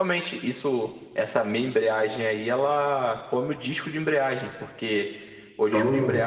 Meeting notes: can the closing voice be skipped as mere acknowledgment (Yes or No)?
Yes